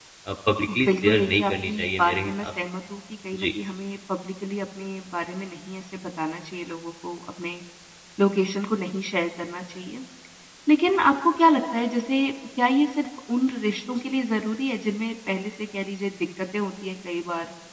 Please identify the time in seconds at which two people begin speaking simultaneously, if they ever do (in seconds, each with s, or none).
0.8 s